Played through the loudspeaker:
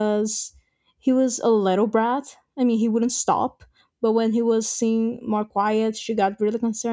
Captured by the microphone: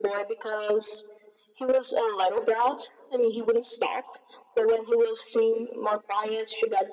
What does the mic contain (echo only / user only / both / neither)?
echo only